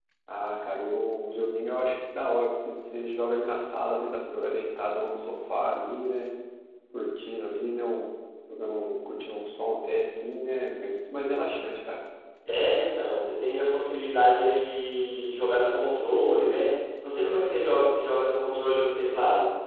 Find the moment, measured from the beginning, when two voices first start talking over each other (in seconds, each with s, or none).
none